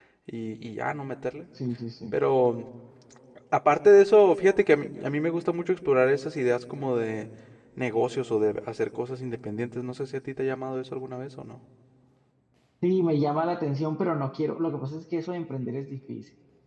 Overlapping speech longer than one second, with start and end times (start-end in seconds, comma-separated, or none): none